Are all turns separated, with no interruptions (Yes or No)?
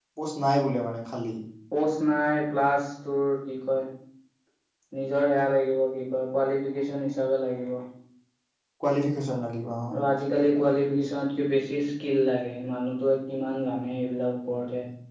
Yes